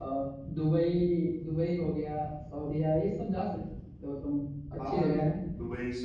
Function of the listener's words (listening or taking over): taking over